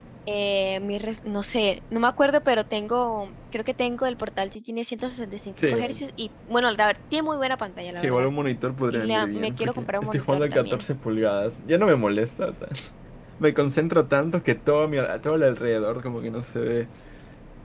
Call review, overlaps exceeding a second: present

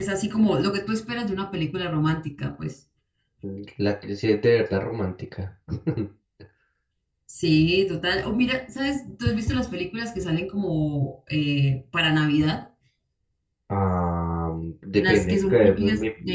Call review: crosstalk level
present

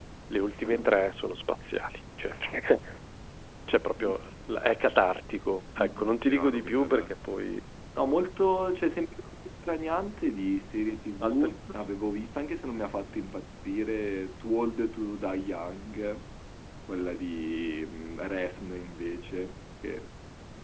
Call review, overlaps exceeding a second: present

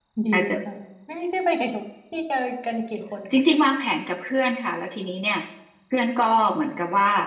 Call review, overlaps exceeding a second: none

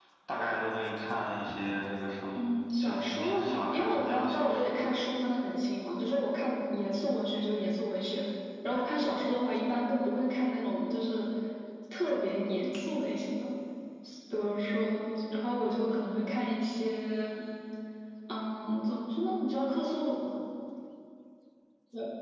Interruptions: present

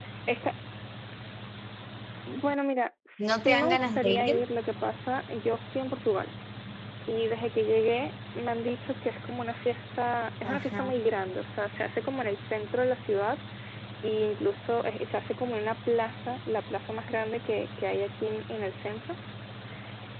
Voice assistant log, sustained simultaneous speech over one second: present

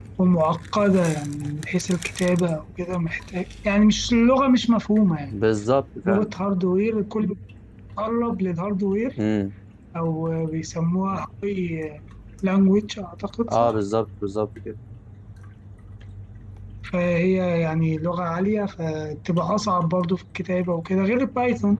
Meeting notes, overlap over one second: none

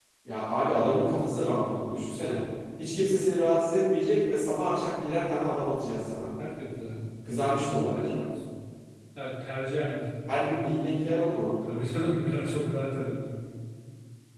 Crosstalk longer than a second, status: none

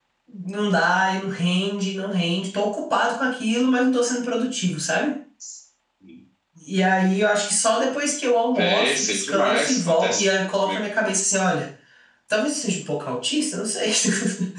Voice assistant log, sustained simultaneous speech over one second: present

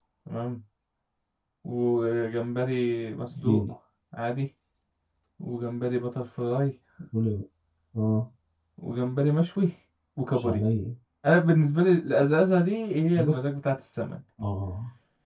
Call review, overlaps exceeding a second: none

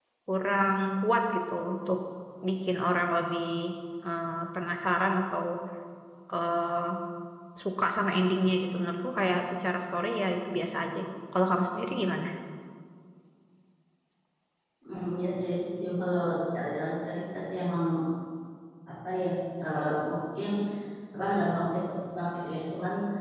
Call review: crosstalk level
none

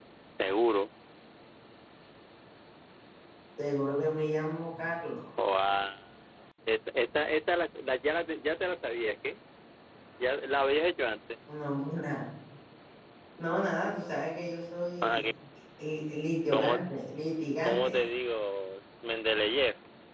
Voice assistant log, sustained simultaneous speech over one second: none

